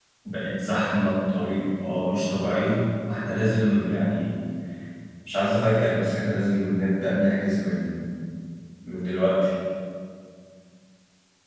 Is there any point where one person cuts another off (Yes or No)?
No